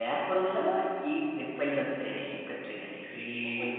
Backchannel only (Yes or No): No